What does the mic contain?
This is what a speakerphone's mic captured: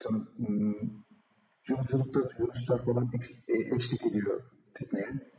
echo only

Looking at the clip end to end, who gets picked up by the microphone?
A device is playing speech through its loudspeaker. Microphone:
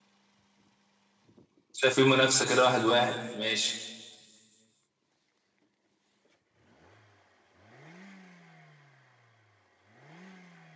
user only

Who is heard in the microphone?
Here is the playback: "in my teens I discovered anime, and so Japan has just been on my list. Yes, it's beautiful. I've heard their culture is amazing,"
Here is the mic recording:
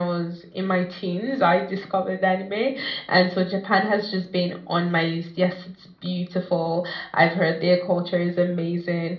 echo only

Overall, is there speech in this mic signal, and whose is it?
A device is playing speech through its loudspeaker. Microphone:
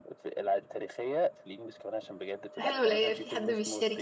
both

